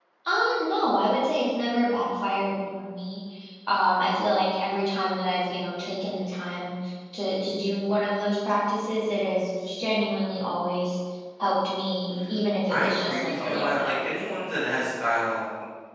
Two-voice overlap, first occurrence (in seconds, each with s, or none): 12.7 s